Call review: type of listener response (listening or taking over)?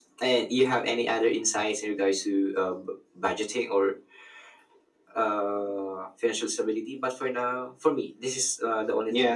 taking over